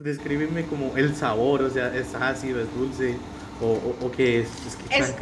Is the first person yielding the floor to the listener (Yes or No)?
Yes